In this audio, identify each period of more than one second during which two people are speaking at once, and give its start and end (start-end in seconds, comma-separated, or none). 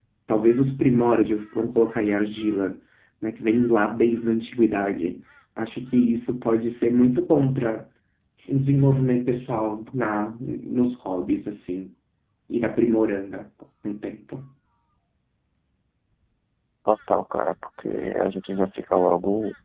none